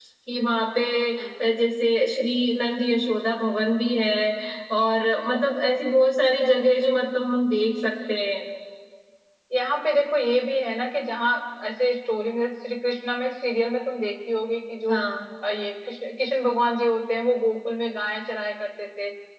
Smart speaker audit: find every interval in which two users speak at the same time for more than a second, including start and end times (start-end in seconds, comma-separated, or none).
none